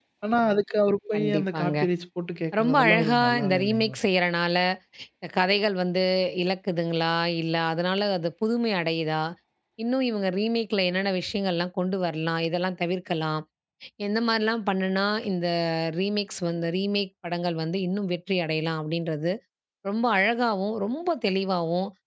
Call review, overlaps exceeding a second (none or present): present